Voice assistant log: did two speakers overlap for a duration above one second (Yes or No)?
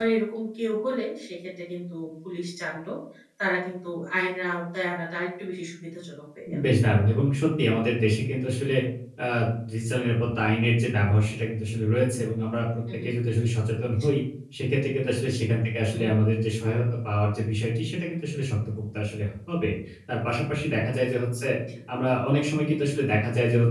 No